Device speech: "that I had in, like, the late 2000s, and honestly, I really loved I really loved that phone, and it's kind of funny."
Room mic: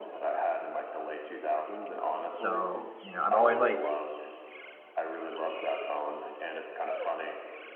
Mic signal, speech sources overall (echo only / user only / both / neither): both